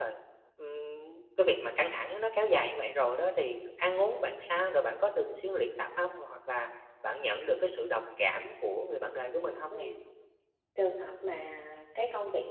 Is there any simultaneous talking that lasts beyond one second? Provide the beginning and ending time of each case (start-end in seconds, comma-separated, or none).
none